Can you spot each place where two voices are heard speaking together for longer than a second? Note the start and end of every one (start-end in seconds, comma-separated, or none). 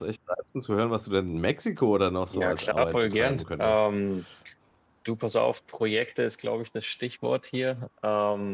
2.3-3.8